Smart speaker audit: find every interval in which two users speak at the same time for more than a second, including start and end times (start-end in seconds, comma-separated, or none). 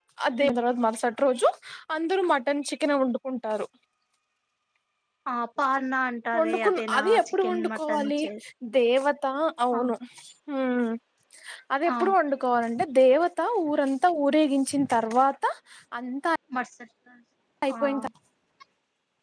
6.4-8.2